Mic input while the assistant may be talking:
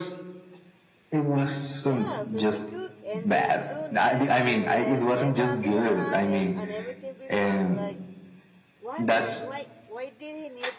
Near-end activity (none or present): present